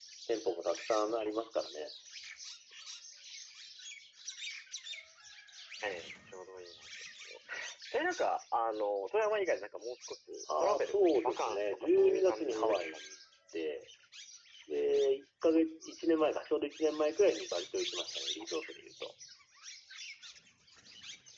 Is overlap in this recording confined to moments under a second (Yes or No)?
No